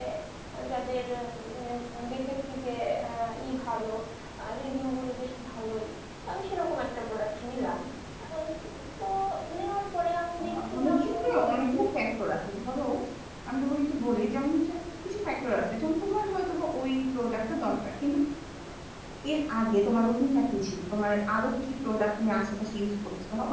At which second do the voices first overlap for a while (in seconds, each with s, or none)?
10.4 s